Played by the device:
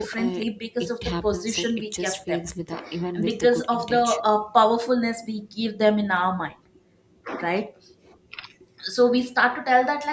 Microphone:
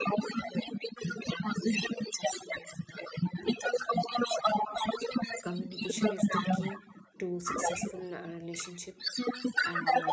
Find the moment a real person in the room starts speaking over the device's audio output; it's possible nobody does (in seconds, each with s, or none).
5.4 s